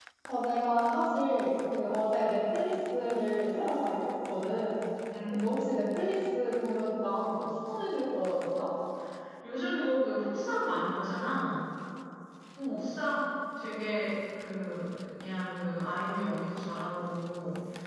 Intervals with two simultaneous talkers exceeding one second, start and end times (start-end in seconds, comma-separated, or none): none